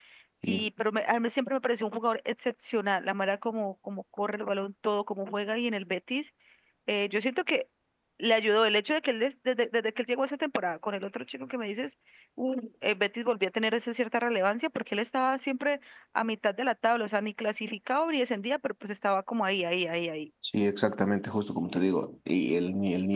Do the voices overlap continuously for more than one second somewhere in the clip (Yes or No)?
No